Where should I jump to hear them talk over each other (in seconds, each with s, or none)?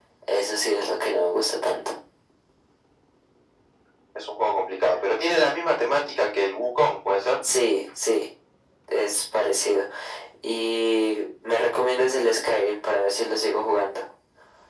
none